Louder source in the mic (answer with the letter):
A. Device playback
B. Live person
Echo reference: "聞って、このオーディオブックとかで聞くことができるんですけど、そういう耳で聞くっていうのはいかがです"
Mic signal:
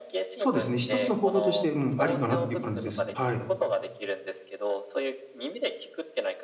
B